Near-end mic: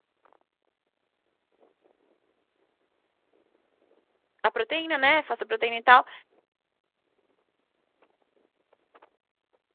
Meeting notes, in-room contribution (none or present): present